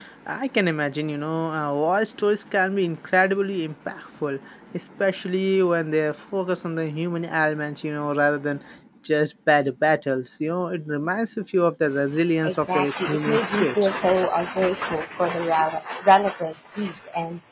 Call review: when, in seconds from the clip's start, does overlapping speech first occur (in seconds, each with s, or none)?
12.4 s